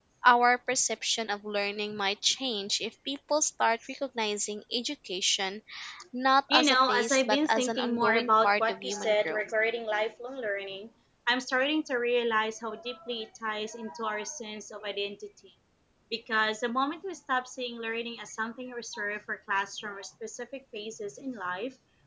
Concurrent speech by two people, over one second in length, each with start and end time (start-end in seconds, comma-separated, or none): 6.5-9.4